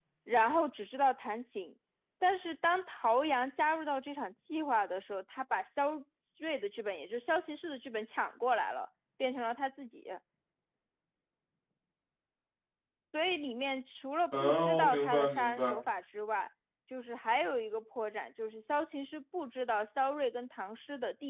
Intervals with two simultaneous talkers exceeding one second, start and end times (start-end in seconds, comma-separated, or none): 14.4-15.7